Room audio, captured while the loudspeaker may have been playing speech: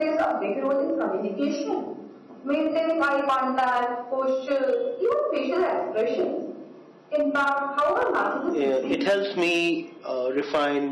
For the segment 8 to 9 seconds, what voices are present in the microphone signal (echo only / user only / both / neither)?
both